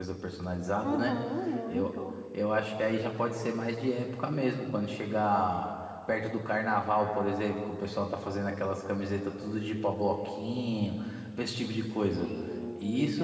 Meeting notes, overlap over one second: none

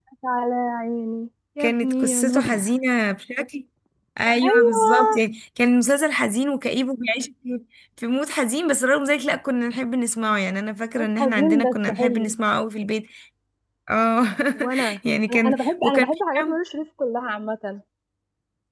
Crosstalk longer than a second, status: present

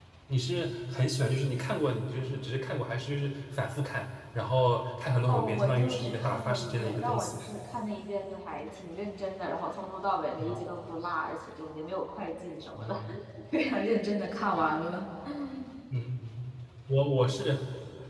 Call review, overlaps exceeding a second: present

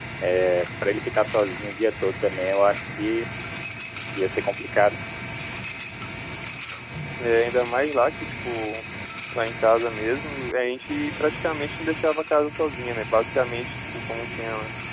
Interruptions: none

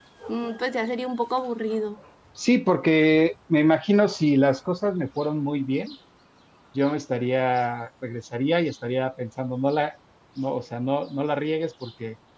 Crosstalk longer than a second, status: none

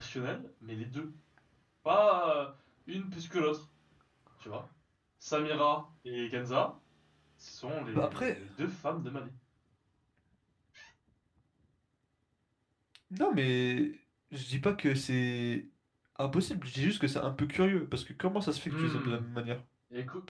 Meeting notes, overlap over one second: none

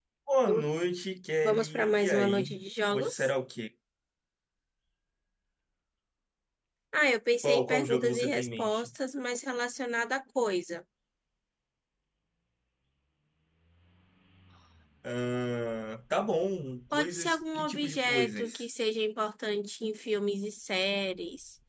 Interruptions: present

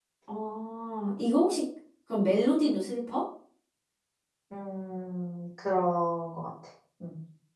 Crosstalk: none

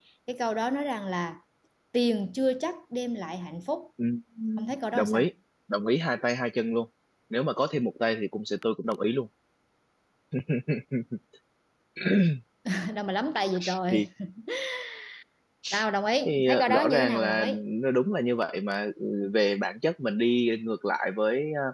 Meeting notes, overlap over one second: present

